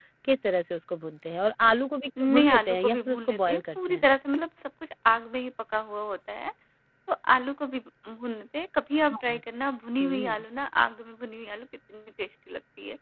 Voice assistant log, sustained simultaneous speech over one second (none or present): present